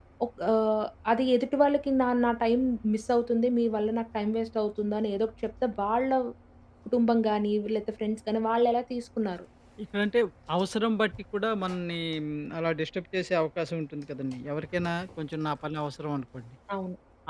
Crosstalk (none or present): none